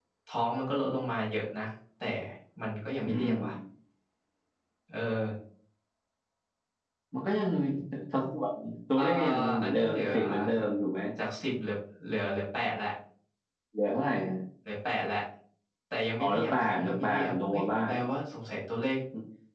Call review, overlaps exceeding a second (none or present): present